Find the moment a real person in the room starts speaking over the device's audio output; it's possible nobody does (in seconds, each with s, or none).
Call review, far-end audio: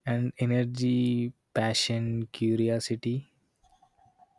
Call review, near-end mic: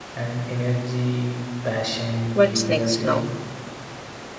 2.3 s